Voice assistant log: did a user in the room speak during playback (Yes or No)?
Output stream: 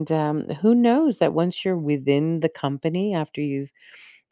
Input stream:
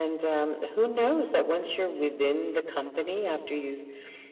No